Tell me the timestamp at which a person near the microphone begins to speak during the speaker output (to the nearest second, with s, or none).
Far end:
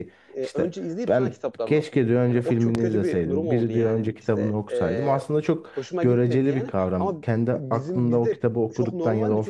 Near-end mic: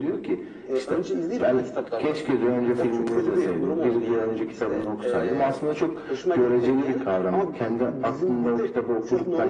none